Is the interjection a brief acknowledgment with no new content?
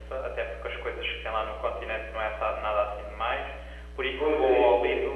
No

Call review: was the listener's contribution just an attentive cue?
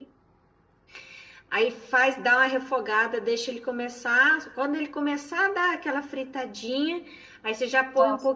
Yes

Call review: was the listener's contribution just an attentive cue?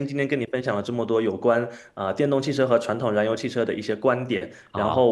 Yes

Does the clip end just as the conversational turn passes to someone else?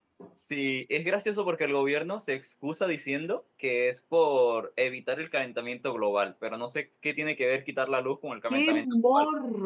Yes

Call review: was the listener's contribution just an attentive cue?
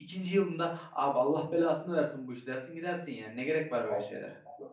No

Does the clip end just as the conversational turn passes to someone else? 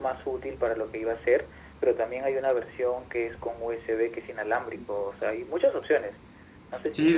Yes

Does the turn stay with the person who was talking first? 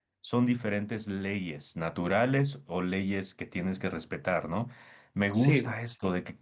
Yes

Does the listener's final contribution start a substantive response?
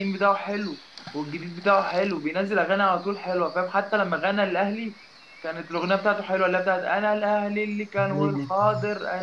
No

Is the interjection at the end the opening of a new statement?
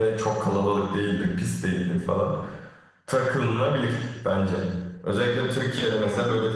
No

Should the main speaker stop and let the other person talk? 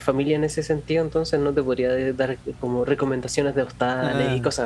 Yes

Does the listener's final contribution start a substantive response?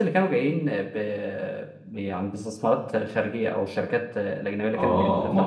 Yes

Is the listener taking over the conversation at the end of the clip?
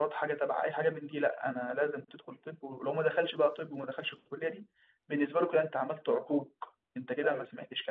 No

